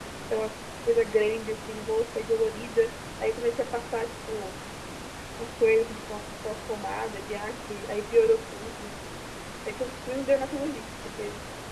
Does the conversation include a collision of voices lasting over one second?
No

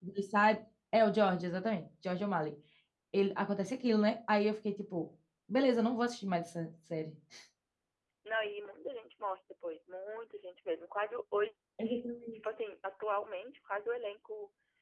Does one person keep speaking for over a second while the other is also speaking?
No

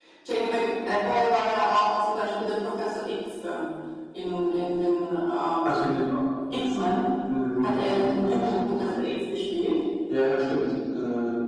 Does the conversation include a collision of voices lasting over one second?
Yes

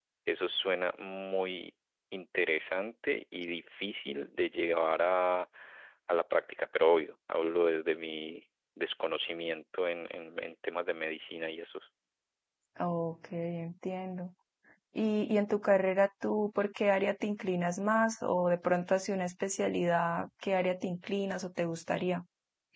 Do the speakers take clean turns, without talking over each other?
Yes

